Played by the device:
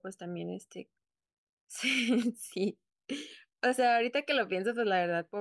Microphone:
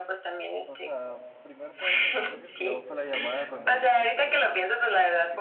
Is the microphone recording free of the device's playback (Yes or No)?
No